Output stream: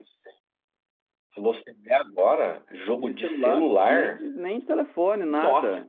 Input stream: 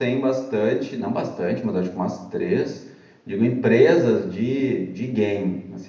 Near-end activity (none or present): present